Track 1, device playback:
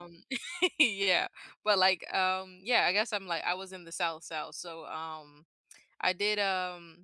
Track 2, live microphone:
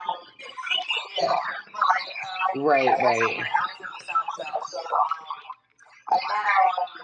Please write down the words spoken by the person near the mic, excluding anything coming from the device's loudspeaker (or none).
Right, right.